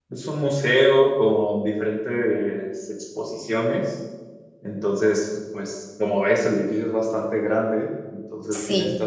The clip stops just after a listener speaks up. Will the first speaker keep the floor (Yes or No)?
Yes